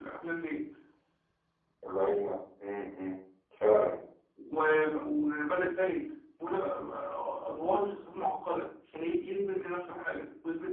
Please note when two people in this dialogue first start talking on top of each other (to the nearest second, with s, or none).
none